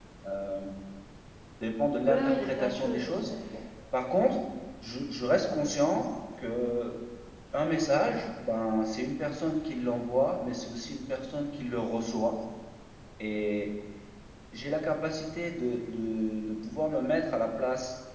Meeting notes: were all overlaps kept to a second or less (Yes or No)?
No